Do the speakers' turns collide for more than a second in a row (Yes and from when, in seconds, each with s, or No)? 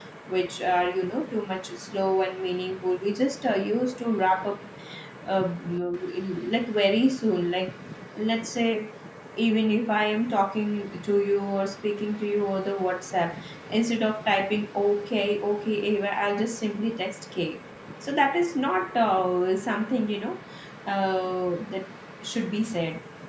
No